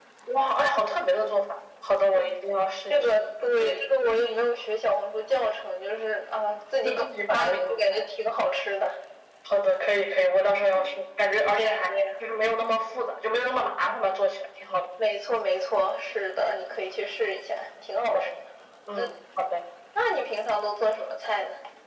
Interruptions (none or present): present